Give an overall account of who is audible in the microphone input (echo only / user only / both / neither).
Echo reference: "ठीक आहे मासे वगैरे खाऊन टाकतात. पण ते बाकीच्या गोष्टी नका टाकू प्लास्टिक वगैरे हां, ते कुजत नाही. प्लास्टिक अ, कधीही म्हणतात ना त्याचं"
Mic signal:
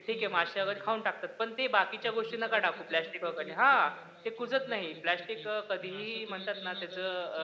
both